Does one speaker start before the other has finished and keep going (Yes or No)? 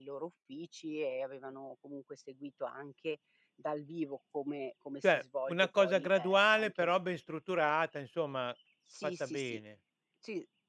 Yes